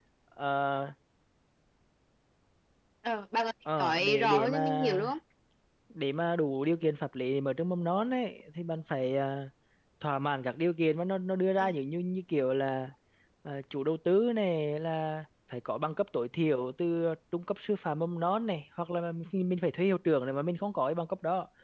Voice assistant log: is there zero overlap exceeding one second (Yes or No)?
No